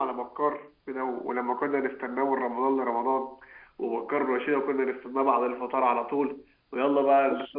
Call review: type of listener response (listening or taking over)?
listening